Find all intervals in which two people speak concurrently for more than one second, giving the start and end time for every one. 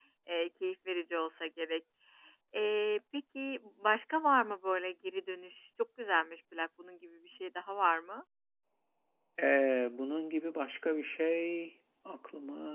none

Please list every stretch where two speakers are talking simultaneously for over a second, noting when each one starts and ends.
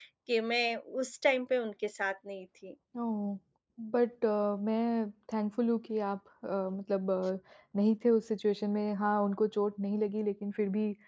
none

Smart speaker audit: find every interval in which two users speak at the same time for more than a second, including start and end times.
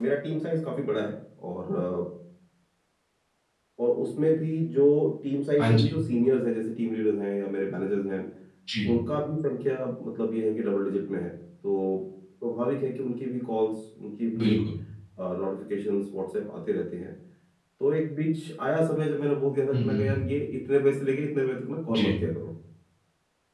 none

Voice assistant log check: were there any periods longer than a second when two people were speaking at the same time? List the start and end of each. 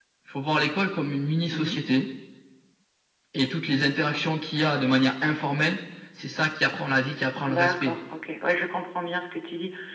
none

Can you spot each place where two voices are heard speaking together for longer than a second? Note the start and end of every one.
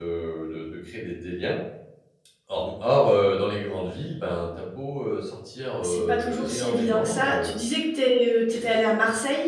5.8-7.6

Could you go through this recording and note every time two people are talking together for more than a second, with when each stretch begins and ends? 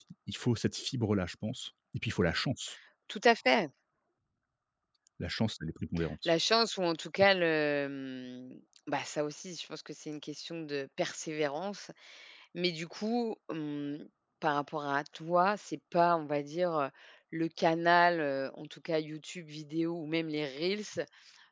none

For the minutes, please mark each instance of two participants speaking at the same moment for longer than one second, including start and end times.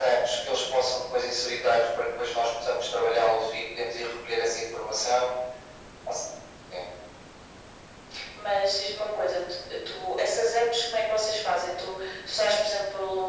none

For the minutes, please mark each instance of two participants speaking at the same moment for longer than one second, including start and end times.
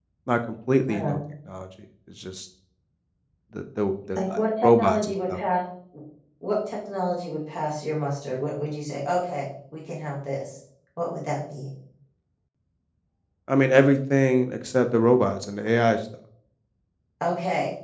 4.2-5.4

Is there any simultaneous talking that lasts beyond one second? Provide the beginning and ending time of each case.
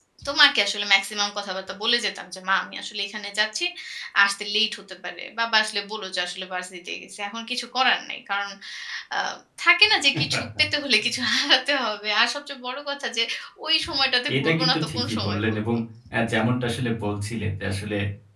14.3-15.6

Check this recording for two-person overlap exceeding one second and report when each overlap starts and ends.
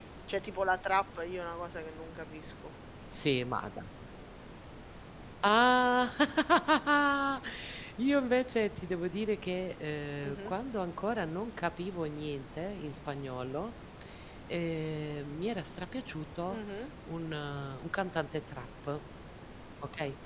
none

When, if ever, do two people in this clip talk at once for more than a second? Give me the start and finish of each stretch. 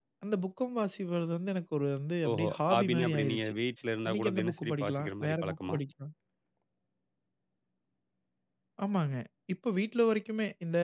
2.3-3.5, 4.1-5.8

